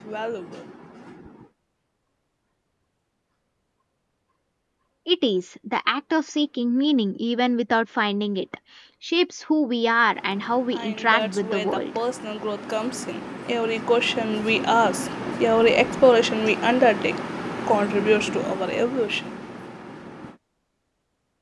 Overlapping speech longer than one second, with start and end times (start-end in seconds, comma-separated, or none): 10.7-12.0